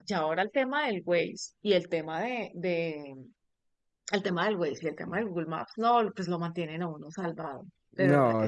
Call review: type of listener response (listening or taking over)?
taking over